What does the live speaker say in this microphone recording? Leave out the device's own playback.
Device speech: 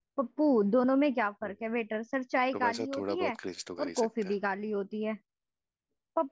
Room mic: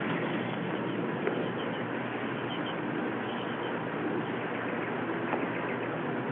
none

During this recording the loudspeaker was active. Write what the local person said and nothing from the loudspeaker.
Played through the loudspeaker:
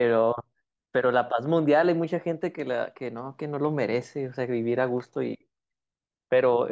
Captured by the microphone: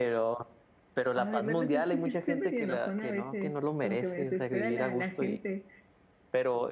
Ay, no lo sé, es que sí soy medio enojona a veces, como que me desespera la, la gente.

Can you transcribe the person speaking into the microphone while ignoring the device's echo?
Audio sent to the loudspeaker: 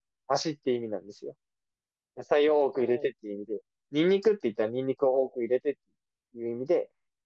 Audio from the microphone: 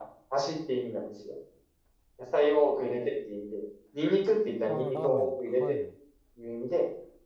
あー、ラーメン。はい。

